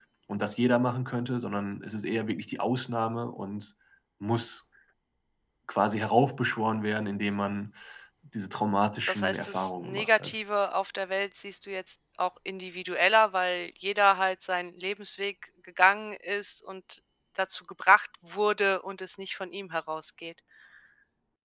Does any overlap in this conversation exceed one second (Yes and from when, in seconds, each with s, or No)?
Yes, from 9.0 s